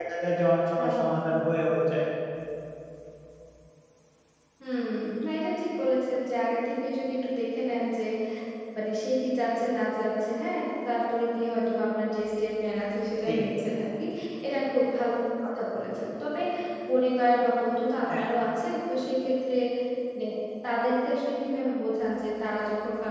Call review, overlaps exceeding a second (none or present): none